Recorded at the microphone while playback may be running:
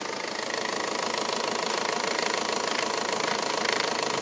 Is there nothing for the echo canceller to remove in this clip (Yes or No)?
Yes